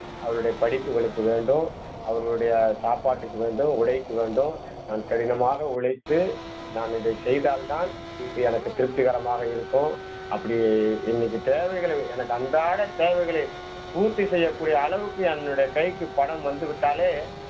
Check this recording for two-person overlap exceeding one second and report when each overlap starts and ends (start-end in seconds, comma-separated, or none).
none